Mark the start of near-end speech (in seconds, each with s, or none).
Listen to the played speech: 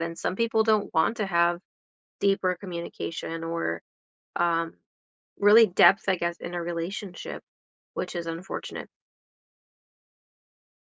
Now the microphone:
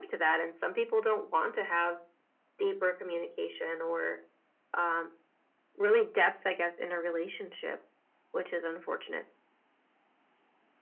none